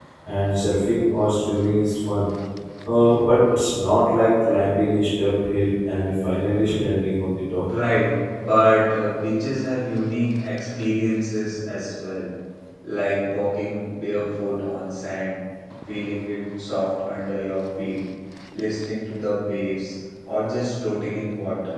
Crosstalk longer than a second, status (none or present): none